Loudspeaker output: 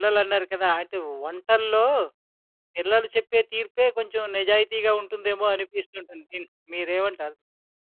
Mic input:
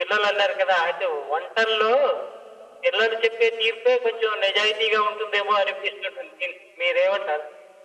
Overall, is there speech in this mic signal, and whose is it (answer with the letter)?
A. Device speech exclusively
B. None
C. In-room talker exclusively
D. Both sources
A